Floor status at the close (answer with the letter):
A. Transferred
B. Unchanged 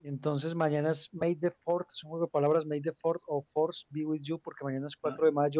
B